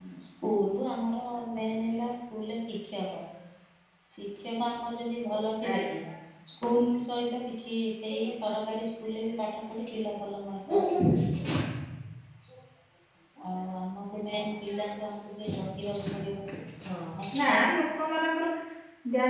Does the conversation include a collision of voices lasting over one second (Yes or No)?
No